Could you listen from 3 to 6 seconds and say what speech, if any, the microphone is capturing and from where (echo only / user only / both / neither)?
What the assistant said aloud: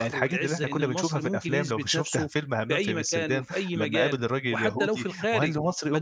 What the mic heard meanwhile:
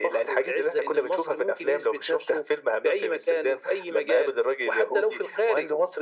echo only